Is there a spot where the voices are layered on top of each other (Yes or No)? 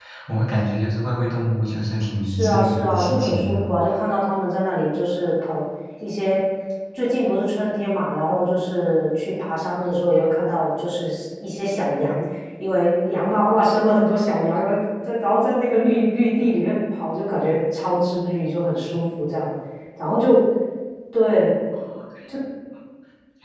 Yes